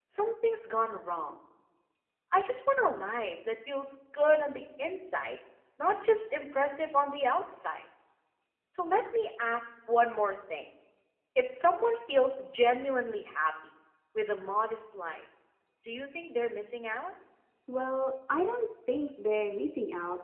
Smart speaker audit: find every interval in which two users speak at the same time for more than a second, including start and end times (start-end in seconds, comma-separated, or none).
none